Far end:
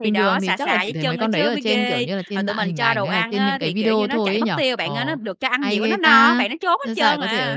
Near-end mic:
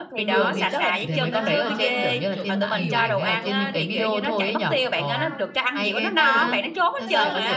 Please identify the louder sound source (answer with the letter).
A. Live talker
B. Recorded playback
B